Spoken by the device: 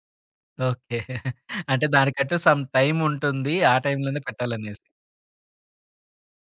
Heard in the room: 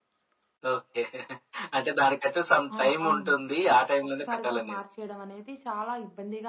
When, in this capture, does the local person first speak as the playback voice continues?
3 s

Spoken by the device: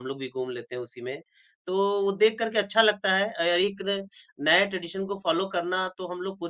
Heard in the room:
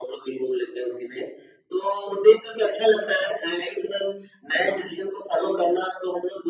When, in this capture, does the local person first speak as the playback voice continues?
none

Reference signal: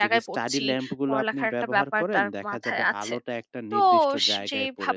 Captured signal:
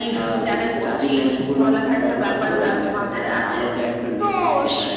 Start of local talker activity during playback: none

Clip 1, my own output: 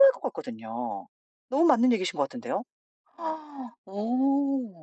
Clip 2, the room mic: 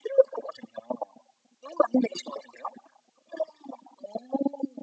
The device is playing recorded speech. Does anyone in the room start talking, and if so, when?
none

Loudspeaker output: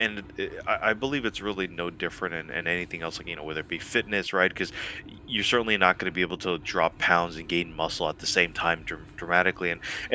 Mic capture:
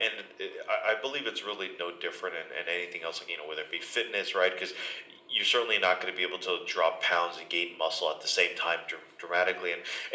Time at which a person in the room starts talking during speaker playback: none

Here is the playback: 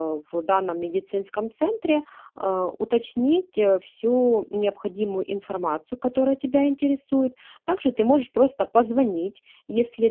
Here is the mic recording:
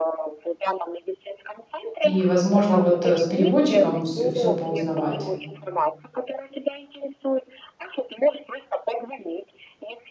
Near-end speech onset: 2 s

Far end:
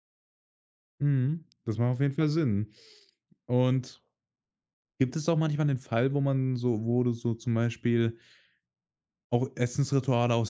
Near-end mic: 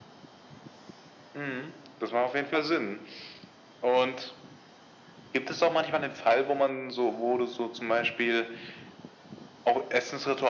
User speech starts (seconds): none

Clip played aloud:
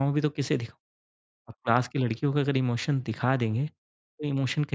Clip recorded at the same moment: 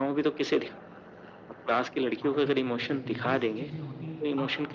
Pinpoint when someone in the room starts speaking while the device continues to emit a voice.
2 s

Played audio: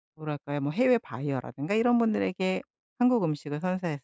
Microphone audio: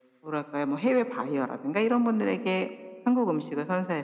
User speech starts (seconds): none

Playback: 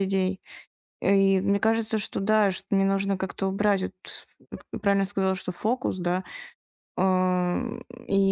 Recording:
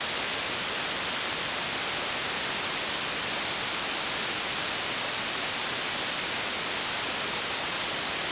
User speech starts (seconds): none

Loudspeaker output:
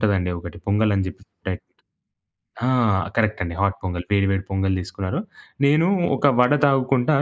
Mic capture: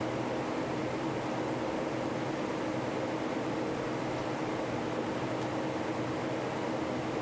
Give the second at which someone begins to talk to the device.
none

